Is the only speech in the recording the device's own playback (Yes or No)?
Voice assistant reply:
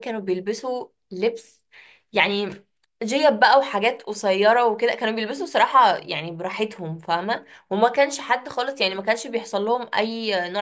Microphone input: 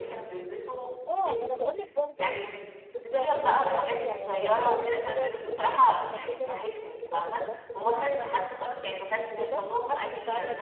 No